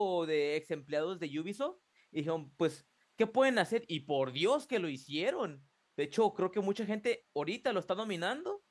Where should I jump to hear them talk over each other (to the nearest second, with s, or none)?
none